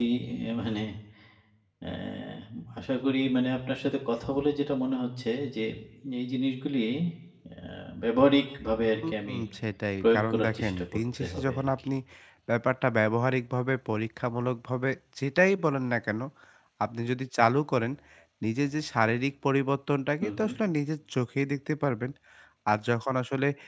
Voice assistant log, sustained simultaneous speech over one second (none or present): present